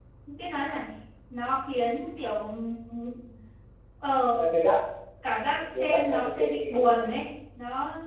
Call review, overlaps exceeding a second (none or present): present